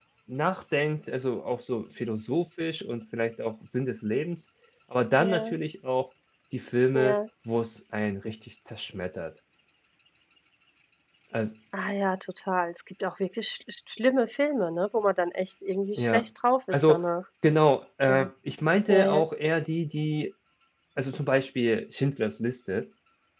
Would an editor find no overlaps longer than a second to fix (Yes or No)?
Yes